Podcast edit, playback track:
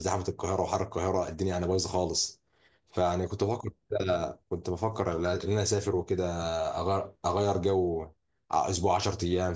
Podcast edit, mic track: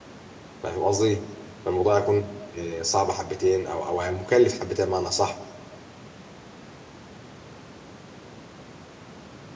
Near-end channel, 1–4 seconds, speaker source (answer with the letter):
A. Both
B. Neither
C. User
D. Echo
C